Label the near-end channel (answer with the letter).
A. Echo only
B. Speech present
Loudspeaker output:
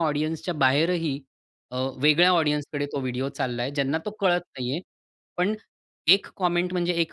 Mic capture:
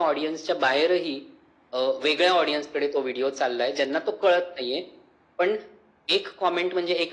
A